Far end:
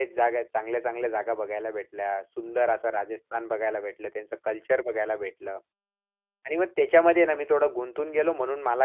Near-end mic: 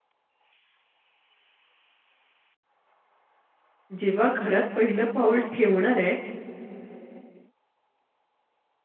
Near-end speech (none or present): present